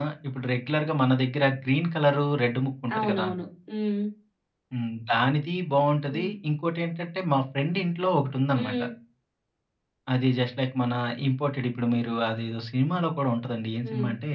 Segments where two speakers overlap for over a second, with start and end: none

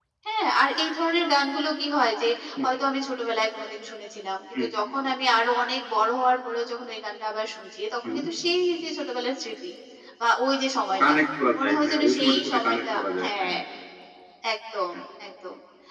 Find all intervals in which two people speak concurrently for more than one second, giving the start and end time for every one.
11.6-13.5

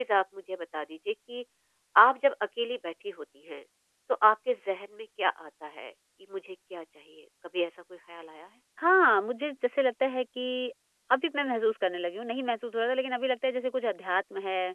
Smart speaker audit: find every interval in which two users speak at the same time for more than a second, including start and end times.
none

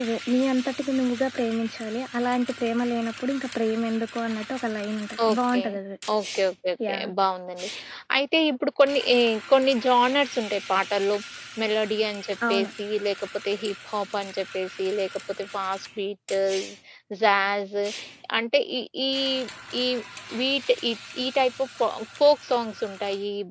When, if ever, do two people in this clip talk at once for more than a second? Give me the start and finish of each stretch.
none

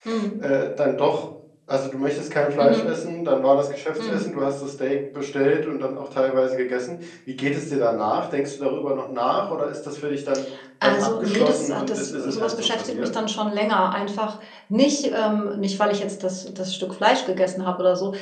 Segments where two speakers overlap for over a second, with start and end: 10.8-13.1

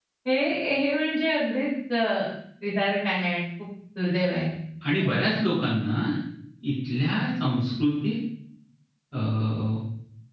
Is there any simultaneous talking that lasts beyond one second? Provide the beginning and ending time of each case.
none

